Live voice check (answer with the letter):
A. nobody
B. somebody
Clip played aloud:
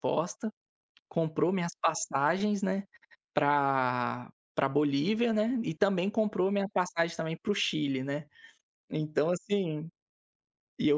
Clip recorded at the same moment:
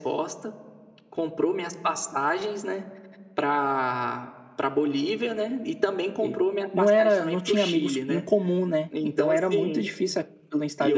B